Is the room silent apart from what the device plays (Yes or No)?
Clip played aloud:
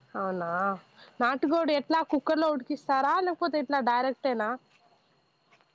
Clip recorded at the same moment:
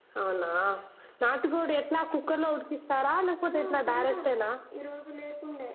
No